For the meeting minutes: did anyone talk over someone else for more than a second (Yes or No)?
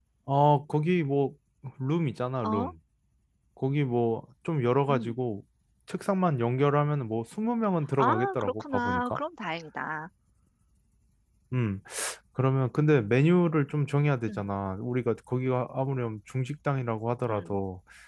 Yes